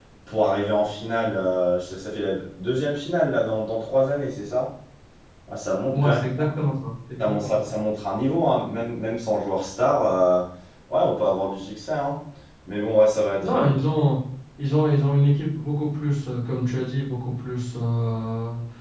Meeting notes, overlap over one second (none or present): none